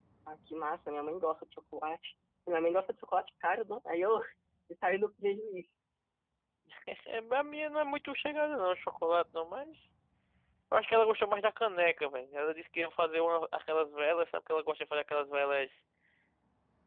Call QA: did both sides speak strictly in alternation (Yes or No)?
Yes